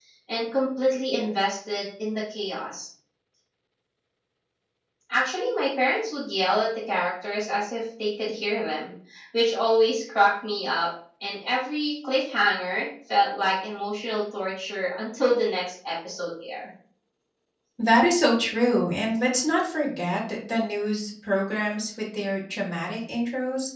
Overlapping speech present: No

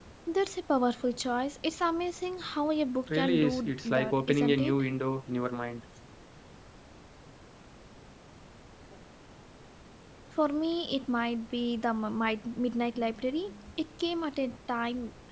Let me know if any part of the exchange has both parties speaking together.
Yes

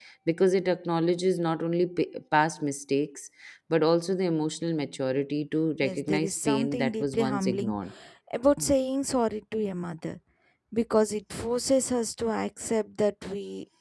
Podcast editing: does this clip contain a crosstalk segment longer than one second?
Yes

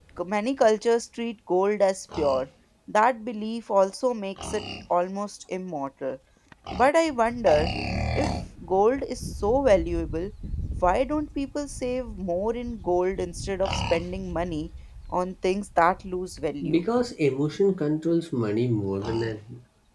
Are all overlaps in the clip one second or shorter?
Yes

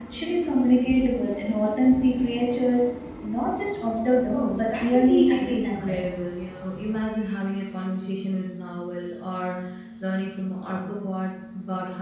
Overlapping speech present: Yes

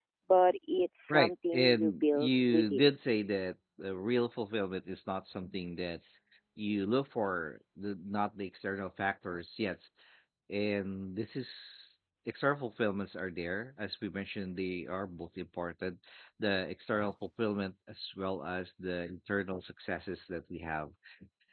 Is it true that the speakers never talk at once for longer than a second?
No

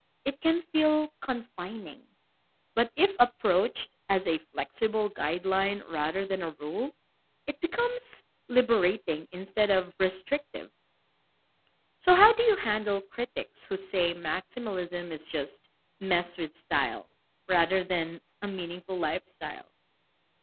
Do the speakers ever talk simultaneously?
No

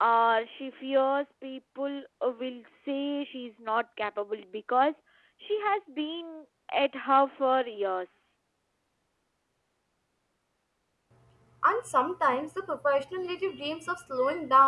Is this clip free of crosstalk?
Yes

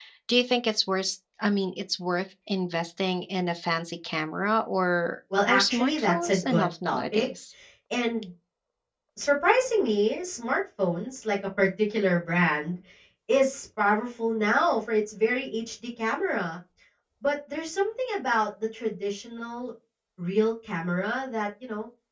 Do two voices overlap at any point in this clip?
Yes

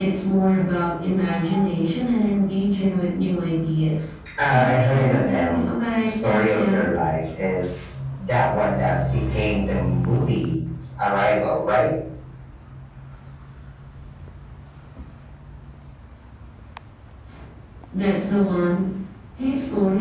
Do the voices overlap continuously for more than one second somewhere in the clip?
Yes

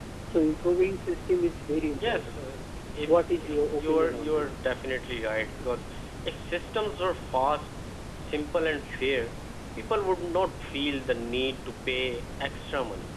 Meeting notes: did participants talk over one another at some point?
Yes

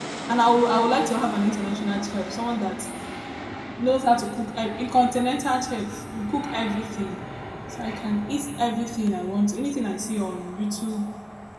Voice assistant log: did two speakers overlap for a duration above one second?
No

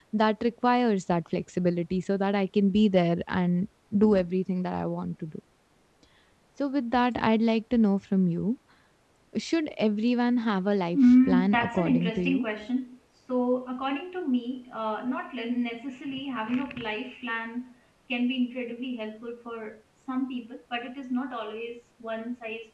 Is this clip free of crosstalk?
No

